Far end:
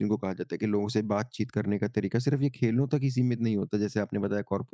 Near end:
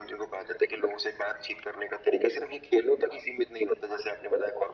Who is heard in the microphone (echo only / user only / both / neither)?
echo only